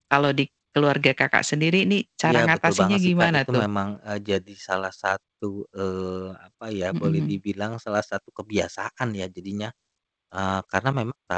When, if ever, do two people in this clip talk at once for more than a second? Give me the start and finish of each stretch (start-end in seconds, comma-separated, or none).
2.2-3.6